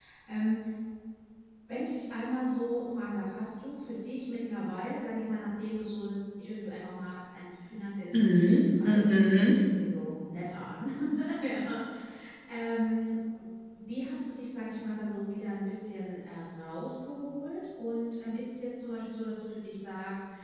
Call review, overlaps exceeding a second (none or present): present